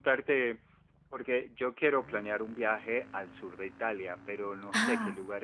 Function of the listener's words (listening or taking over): listening